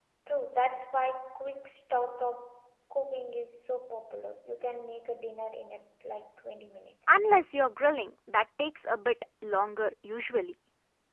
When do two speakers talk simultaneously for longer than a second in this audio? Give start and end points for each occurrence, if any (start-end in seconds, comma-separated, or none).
none